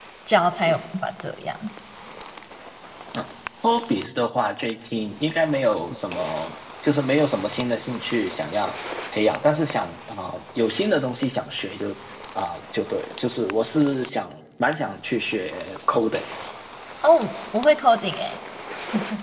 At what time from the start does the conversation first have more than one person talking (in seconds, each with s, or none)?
none